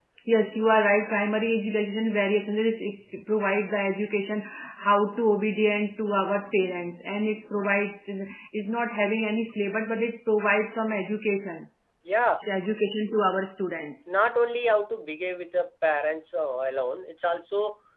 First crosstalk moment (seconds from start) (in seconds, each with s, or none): none